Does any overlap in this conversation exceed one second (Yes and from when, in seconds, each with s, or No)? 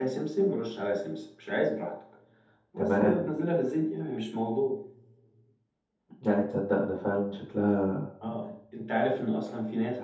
No